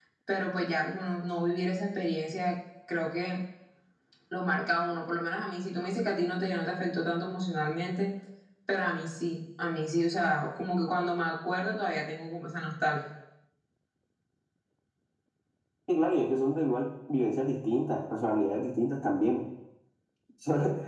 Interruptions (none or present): none